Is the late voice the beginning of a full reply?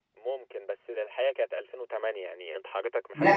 Yes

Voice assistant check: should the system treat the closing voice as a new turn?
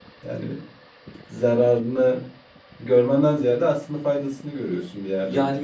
Yes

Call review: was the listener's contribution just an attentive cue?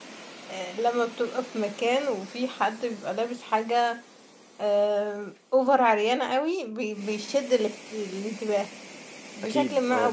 Yes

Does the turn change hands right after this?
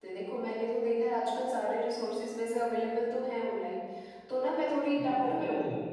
Yes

